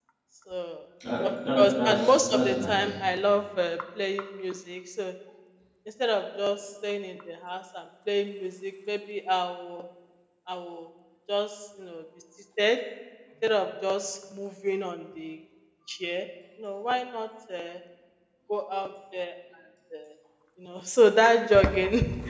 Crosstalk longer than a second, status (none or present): present